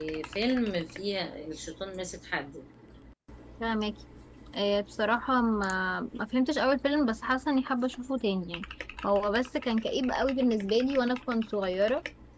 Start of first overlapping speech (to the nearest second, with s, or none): none